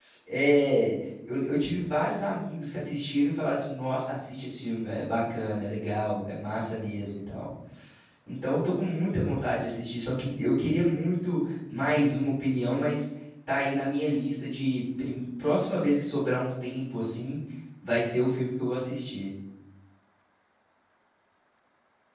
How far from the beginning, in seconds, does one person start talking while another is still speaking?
none

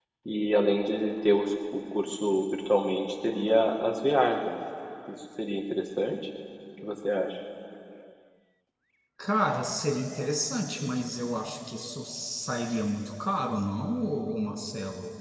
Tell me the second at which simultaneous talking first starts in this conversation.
none

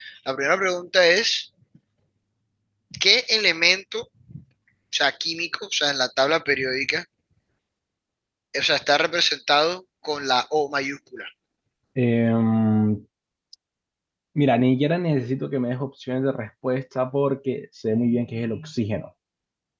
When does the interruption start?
none

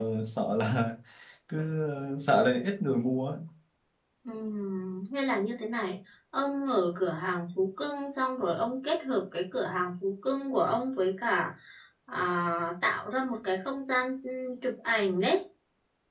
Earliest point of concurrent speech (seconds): none

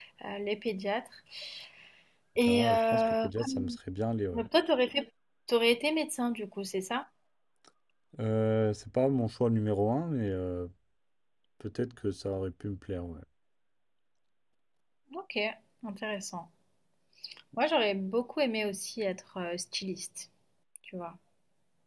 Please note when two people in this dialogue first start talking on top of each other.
2.4 s

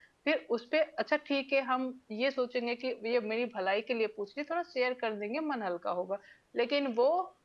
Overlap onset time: none

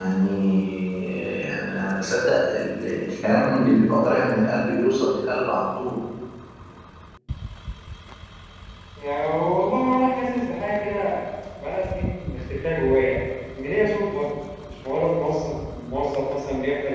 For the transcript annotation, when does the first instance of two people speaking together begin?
none

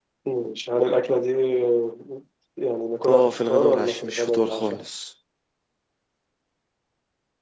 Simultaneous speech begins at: 3.1 s

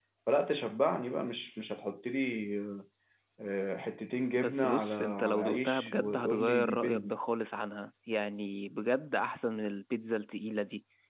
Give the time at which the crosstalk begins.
4.3 s

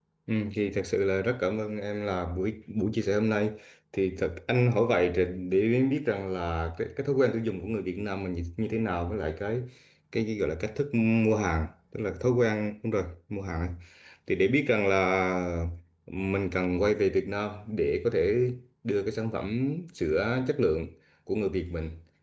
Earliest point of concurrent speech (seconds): none

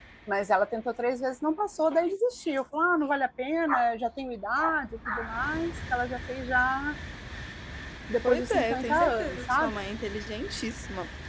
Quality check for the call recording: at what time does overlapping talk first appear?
8.3 s

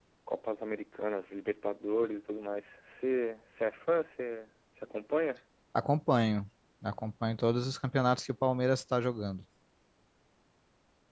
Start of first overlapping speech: none

